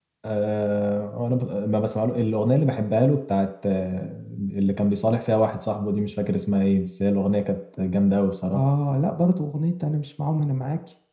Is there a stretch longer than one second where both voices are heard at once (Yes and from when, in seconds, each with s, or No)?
No